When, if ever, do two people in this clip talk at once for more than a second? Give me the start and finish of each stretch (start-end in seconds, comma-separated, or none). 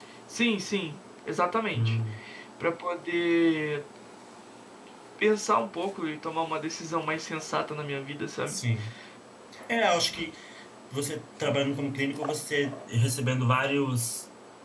none